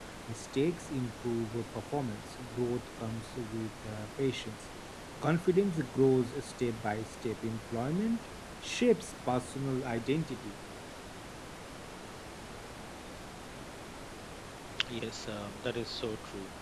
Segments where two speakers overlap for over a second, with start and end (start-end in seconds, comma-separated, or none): none